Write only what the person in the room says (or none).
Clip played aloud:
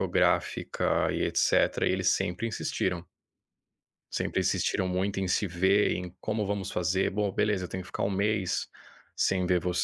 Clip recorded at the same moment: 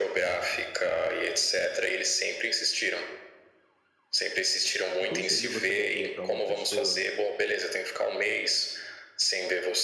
que conselho você daria pra uma pessoa